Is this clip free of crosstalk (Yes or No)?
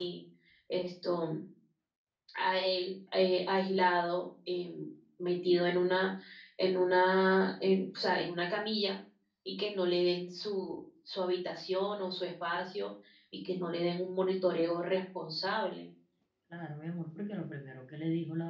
Yes